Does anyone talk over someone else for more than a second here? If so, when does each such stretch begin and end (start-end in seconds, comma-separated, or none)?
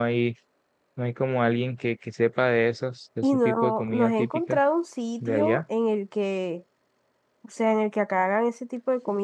3.2-4.6